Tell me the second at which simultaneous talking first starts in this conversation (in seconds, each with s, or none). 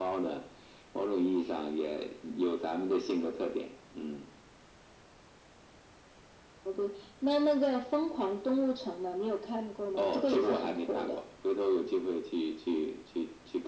10.0 s